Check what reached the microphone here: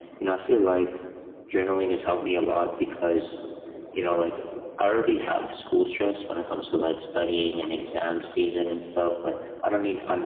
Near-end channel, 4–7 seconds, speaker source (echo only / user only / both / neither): echo only